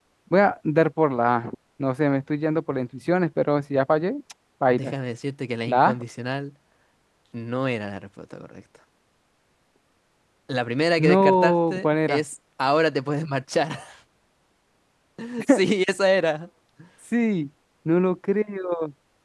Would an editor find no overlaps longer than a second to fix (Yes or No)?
No